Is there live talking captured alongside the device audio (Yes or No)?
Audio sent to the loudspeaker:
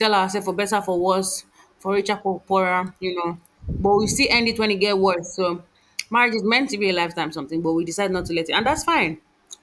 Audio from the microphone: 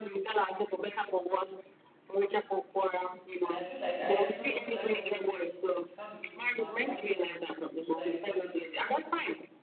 Yes